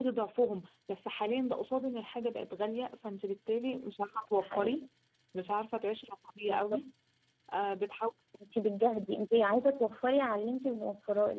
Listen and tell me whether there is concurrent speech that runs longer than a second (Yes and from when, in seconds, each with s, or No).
No